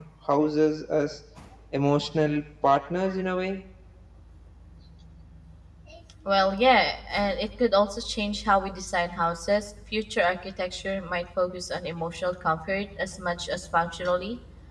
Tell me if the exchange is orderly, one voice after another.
Yes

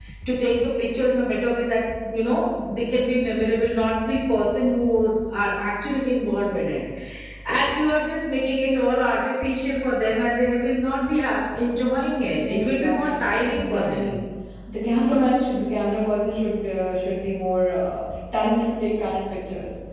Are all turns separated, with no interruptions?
No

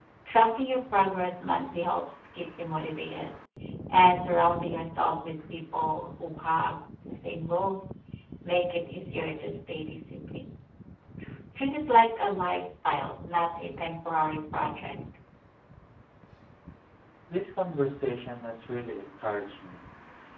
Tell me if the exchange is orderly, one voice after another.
Yes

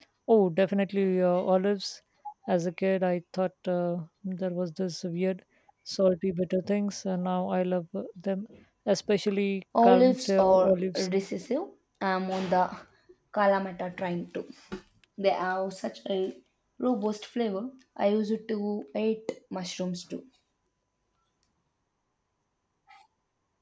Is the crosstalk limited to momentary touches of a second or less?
No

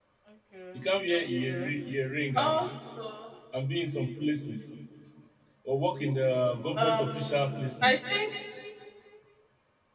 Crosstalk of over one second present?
Yes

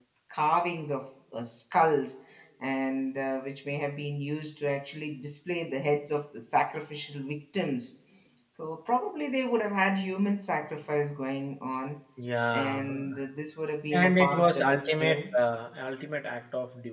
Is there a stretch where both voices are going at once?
Yes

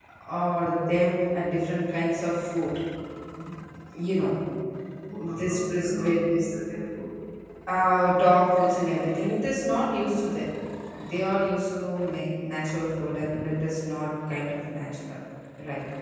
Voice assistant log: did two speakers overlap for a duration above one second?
Yes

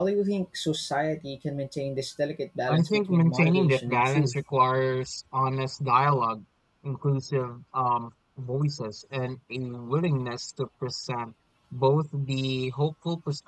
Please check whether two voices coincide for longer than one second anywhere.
Yes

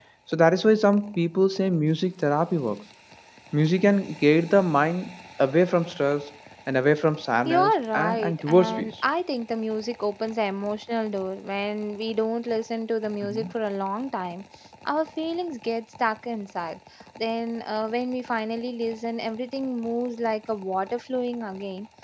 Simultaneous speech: Yes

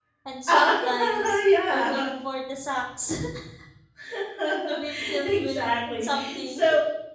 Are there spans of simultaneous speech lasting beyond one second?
Yes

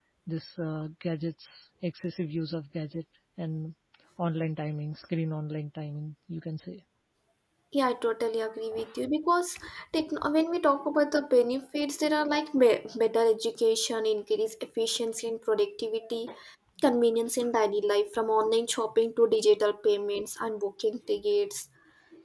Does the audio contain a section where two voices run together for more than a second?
No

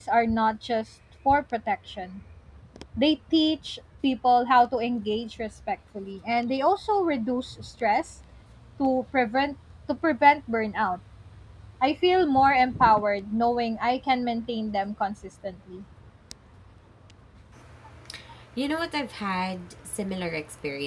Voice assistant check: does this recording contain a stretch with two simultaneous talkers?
No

